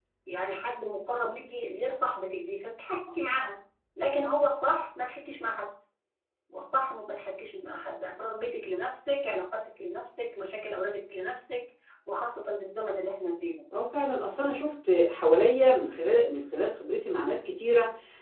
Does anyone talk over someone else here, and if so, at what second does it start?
none

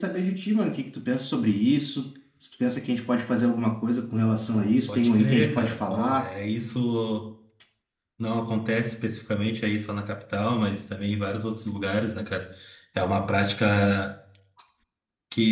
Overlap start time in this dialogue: 4.9 s

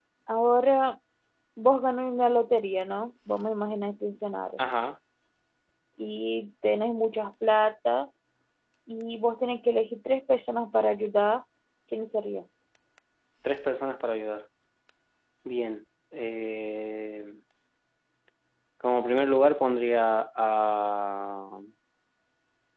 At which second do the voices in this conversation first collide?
none

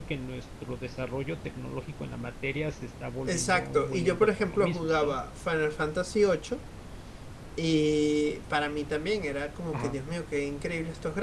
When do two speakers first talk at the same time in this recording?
3.2 s

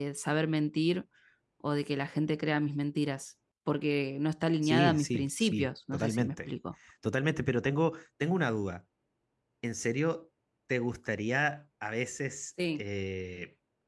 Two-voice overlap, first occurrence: 4.6 s

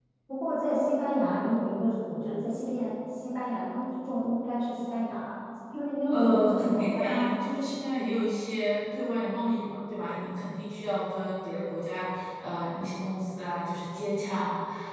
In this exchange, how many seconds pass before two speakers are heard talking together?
6.1 s

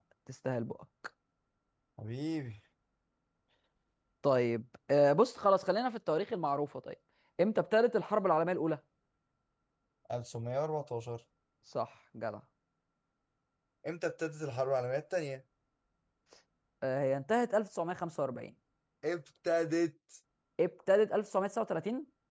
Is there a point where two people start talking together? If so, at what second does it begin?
none

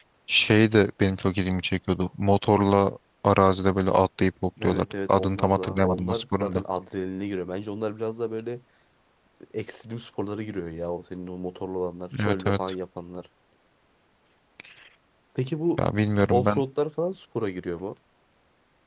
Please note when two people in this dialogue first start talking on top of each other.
4.6 s

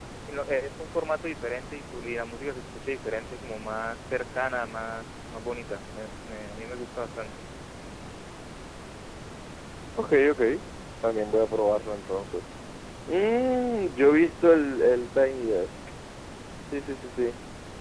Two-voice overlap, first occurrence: none

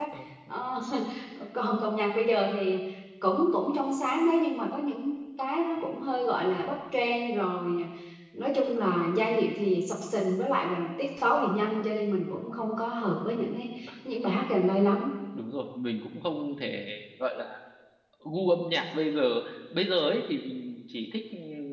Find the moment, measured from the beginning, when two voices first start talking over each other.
none

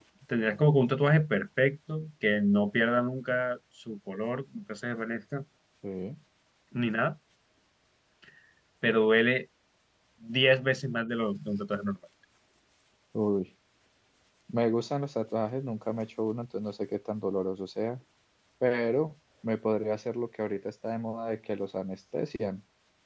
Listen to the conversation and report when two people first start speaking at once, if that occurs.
none

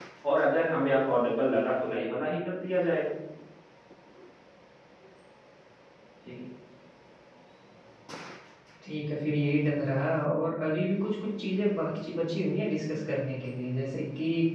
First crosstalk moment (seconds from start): none

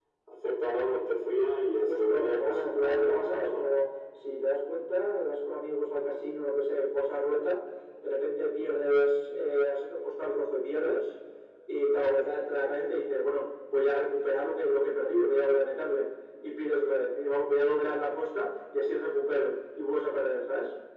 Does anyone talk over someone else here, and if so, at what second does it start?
1.8 s

